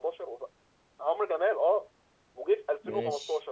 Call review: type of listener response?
listening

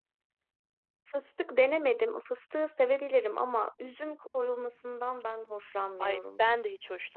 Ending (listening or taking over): taking over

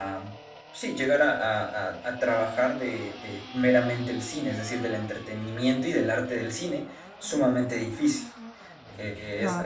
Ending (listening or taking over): listening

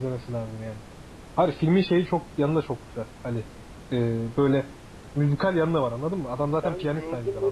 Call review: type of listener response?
taking over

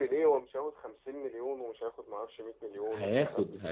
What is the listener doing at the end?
taking over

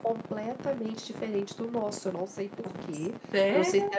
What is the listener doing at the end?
listening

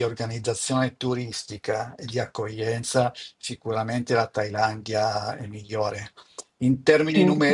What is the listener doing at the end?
listening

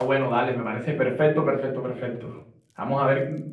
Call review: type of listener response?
listening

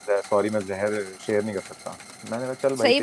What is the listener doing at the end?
taking over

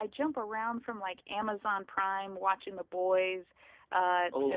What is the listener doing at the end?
listening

